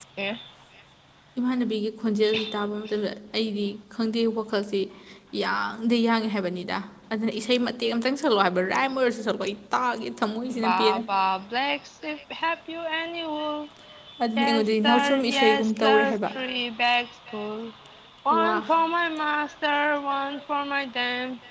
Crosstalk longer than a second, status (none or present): present